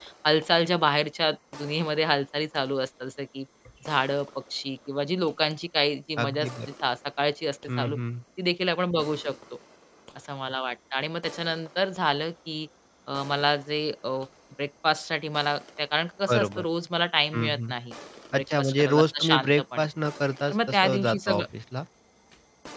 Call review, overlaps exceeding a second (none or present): present